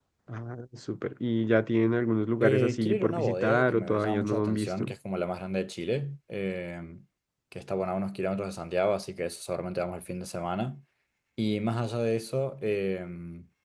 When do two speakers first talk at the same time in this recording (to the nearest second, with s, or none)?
2 s